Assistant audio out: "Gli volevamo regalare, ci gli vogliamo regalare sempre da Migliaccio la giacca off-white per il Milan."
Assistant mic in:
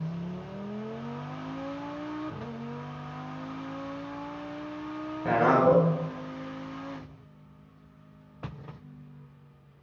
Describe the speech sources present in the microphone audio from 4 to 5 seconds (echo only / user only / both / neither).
neither